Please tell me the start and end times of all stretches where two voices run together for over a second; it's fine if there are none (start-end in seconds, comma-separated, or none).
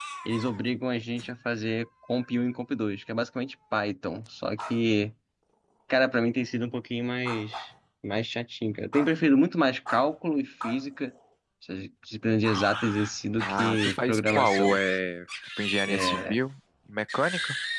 13.4-14.8